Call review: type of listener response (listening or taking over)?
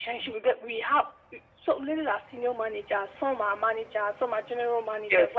listening